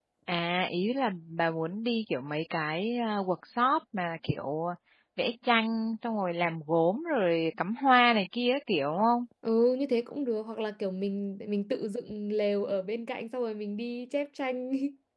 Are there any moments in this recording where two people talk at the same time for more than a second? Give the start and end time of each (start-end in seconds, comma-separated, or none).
none